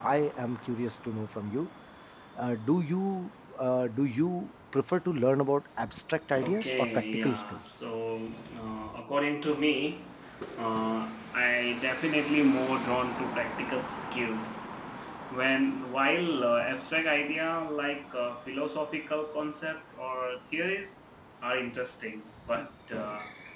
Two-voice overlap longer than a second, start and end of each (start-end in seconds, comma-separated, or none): 6.4-7.7